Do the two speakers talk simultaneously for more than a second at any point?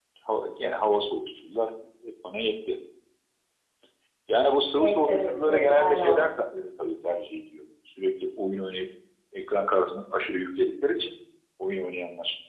Yes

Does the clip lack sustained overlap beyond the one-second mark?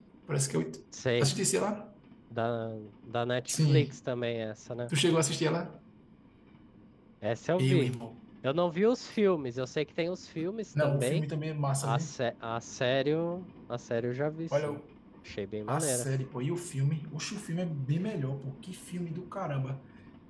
Yes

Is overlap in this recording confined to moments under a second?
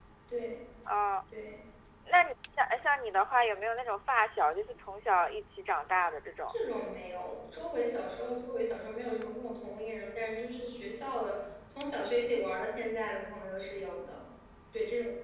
Yes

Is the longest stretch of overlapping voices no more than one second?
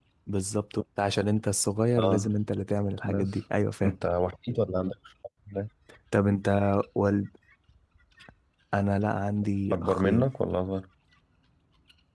Yes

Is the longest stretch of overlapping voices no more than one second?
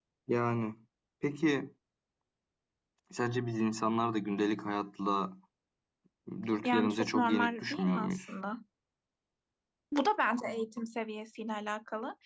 No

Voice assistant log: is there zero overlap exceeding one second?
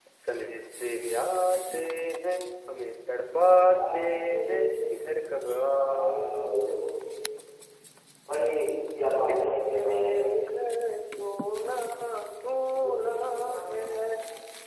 No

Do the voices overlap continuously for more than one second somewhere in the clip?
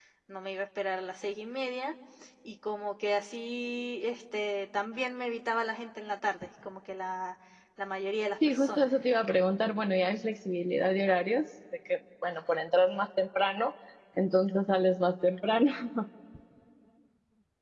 No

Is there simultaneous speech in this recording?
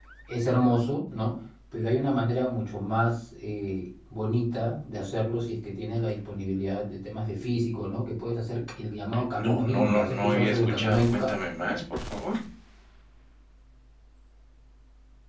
Yes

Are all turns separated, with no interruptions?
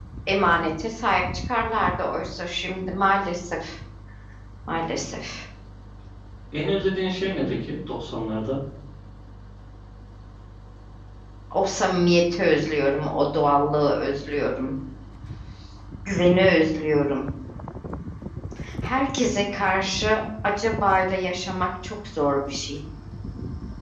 Yes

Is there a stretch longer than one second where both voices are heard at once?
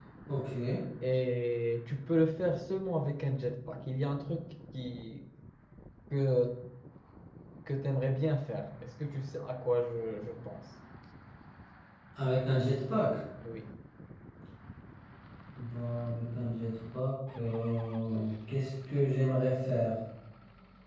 No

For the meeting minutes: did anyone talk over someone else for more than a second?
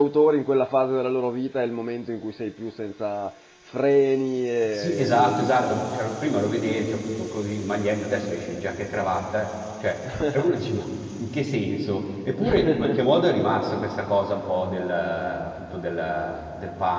Yes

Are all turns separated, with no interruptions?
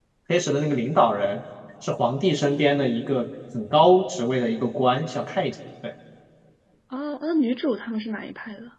Yes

